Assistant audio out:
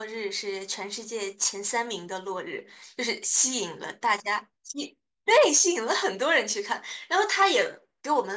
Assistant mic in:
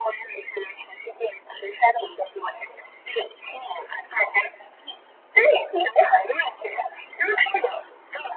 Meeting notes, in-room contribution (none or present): none